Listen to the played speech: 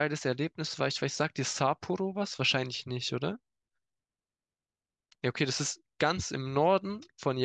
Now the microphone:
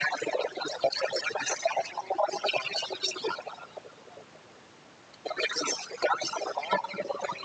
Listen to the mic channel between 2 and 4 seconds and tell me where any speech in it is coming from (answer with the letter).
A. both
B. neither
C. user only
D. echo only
D